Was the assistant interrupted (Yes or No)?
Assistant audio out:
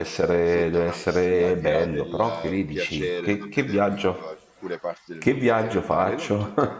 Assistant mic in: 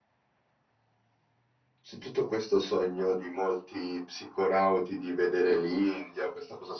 Yes